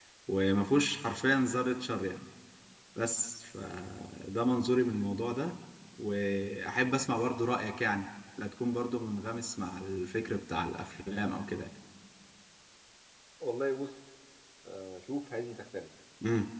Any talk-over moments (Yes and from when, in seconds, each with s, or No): No